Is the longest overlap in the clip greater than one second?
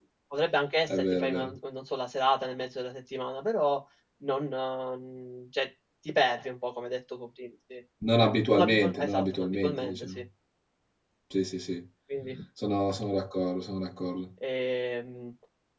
Yes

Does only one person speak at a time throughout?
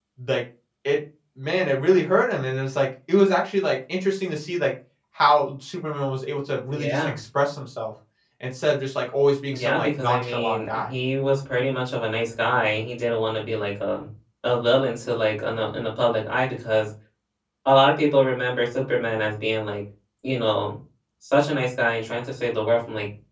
No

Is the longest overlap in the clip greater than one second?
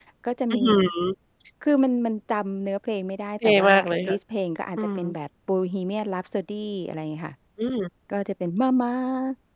No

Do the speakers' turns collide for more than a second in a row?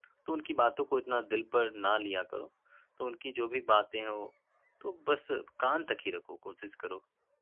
No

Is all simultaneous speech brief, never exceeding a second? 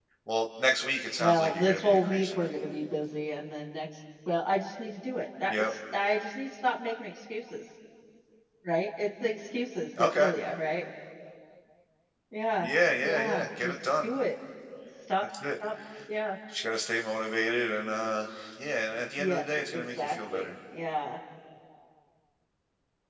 No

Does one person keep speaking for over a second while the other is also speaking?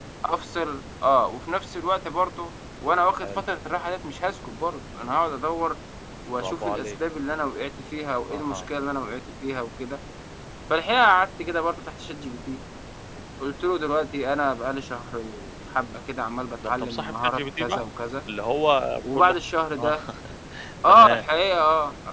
Yes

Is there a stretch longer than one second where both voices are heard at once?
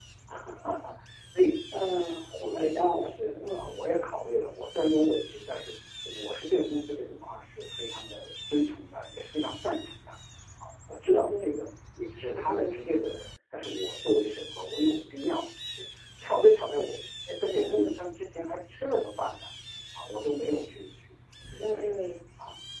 Yes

